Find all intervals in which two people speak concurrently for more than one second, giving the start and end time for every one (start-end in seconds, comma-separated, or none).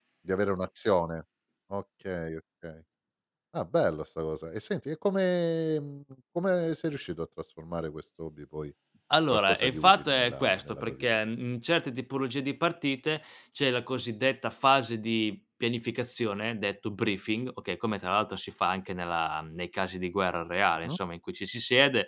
9.5-11.1